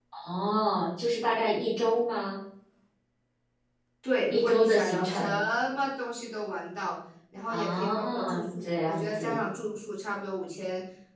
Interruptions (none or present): present